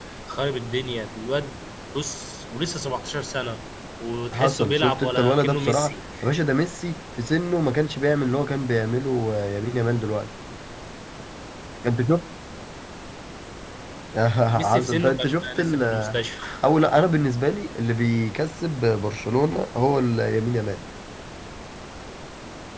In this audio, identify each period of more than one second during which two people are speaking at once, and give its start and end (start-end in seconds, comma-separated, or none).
4.3-5.8, 14.7-16.2